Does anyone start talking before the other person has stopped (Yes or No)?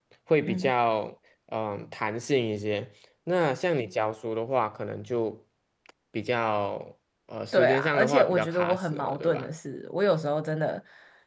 Yes